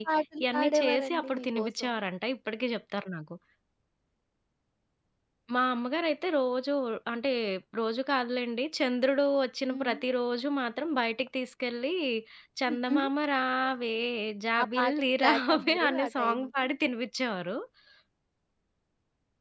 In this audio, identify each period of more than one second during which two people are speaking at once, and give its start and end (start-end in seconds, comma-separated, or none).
0.5-1.9, 14.6-16.6